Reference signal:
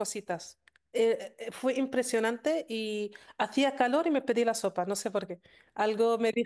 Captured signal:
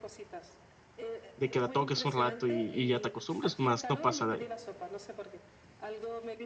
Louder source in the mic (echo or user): user